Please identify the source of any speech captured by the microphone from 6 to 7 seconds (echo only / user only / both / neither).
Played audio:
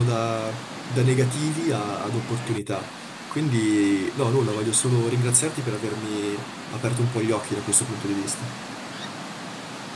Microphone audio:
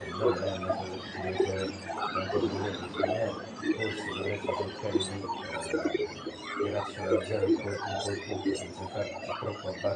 both